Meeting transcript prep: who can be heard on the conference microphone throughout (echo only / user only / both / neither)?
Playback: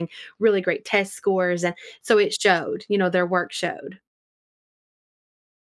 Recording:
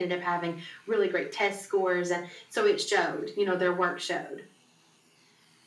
echo only